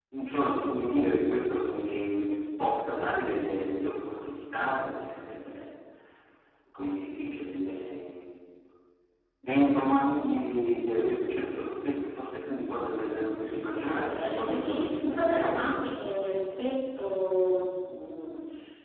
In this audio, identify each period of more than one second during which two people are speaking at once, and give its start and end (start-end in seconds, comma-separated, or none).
13.8-15.7